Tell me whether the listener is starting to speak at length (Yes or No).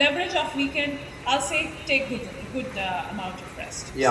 Yes